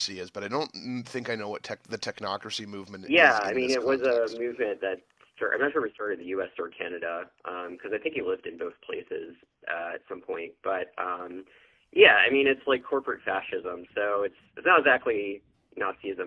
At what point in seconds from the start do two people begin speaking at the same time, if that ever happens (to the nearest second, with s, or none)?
3 s